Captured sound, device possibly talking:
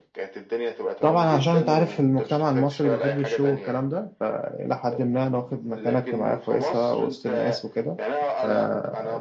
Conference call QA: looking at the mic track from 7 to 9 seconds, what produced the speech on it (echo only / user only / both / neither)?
both